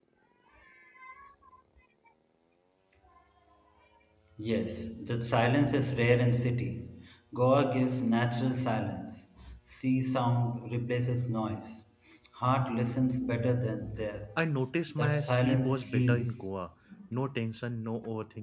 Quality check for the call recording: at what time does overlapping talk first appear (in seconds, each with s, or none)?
14.9 s